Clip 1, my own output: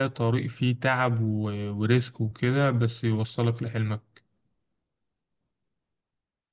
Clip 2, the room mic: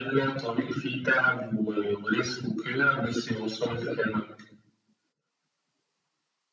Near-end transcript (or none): none